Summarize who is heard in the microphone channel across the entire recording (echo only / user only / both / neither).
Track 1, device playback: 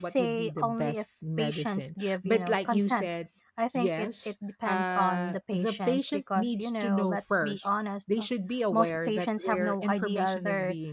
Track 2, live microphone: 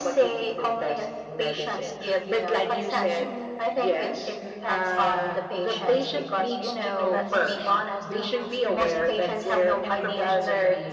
both